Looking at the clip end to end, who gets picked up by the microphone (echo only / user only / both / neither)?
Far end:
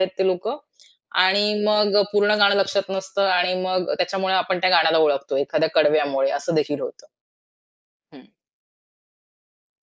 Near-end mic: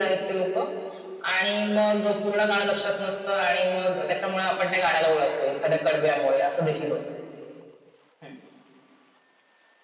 echo only